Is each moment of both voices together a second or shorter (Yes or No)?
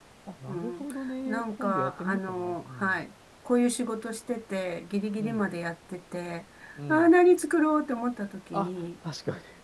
No